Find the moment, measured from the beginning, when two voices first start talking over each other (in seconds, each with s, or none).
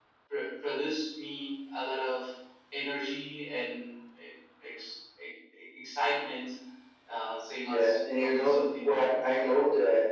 7.6 s